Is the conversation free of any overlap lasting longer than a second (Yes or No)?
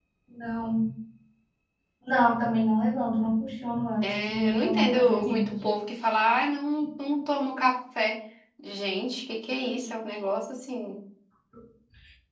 No